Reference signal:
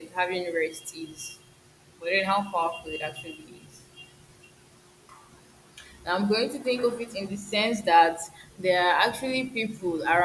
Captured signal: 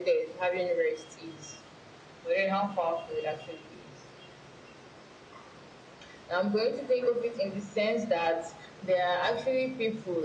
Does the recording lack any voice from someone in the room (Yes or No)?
Yes